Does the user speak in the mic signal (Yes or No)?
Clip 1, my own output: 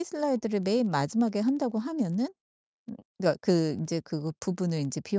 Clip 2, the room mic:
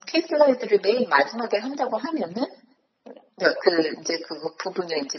No